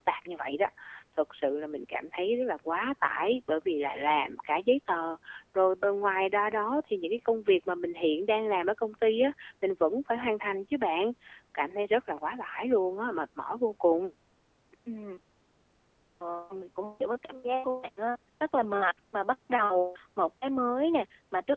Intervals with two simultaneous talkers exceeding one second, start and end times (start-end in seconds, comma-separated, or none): none